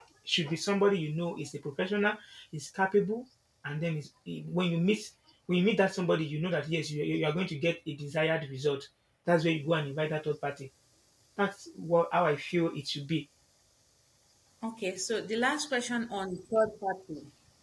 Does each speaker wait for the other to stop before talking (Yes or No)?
Yes